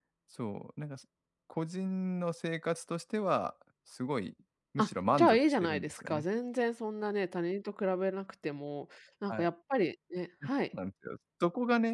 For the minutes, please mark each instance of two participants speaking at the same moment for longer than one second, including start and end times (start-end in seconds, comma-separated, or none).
4.8-6.2